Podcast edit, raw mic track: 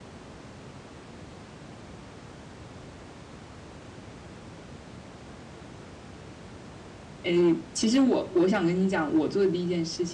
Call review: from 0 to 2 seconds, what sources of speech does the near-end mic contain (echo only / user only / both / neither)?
neither